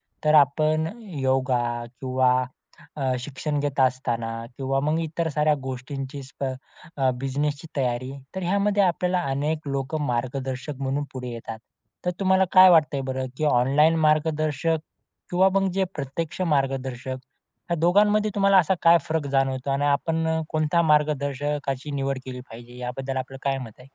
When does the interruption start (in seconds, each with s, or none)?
none